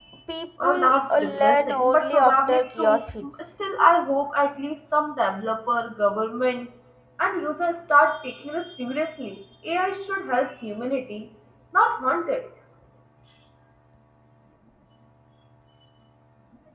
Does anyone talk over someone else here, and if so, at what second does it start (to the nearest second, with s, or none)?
1 s